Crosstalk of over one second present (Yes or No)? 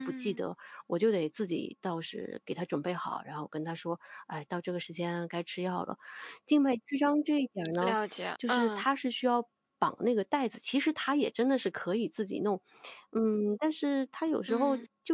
No